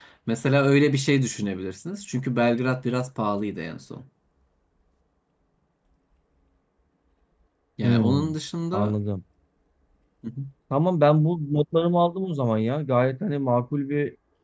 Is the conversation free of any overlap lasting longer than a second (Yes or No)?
Yes